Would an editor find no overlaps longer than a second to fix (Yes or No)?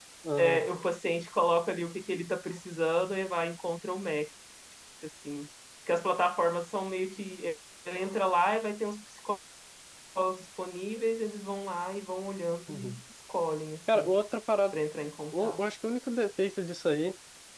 Yes